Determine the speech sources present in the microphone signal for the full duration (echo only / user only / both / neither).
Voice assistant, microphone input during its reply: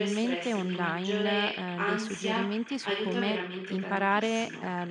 both